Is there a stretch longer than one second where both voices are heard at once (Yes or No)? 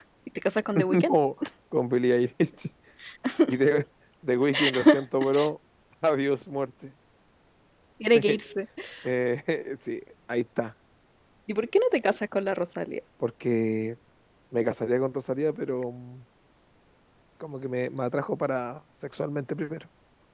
No